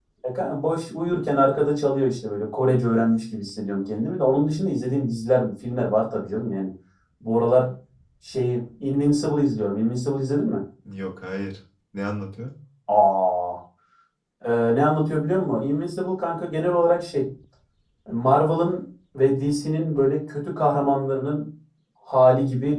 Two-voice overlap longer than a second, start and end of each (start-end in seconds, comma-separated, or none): none